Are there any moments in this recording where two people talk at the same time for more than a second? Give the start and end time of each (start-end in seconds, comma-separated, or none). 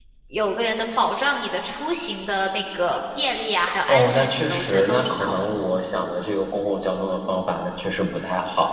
3.9-5.3